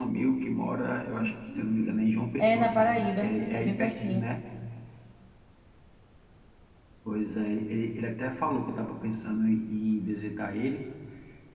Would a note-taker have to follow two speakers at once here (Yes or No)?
Yes